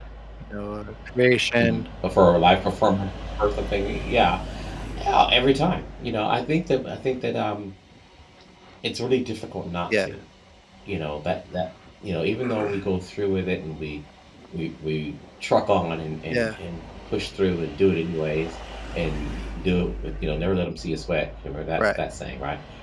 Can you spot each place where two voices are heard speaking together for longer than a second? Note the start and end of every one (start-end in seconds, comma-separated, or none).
none